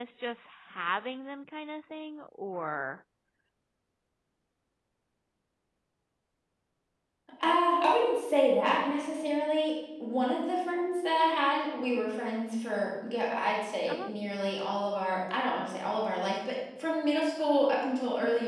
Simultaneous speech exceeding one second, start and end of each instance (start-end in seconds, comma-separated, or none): none